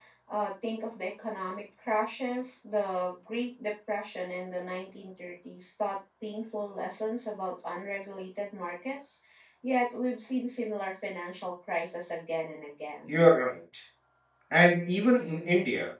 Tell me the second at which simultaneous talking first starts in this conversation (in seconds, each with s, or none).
none